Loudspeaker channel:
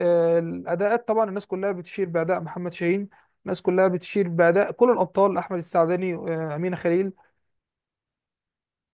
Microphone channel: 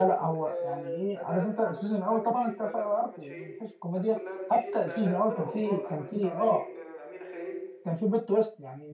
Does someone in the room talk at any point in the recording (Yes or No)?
Yes